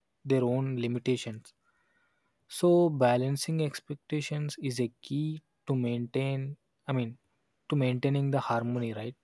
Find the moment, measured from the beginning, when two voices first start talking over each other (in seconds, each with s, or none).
none